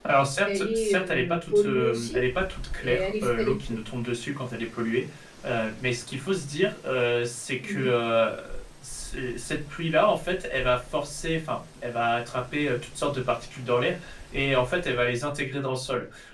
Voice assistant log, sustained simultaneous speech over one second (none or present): present